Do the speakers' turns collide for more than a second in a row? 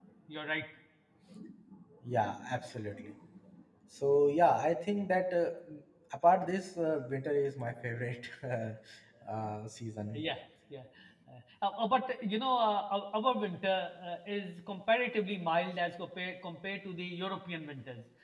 No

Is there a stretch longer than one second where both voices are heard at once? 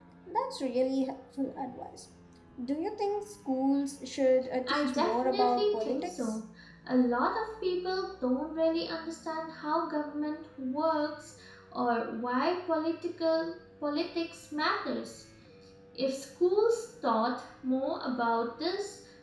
Yes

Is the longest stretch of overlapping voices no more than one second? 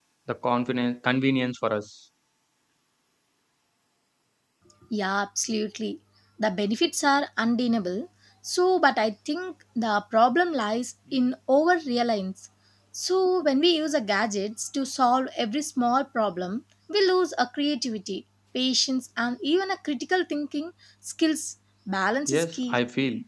Yes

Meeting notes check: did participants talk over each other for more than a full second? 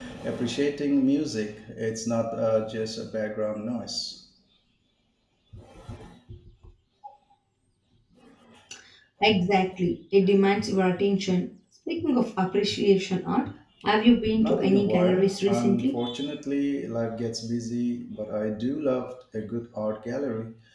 Yes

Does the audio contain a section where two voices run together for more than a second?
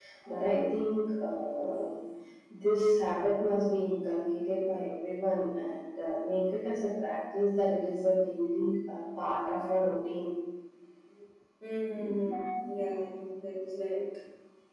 No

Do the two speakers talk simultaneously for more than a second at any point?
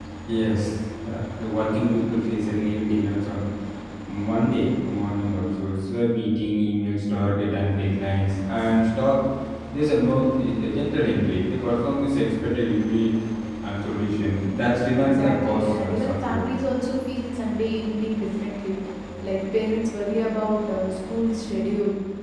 Yes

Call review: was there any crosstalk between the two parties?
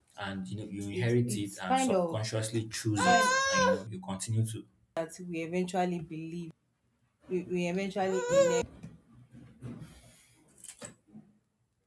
Yes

